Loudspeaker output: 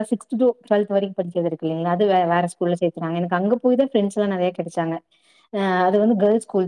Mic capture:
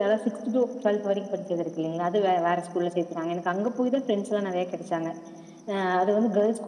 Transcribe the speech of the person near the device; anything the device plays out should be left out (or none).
none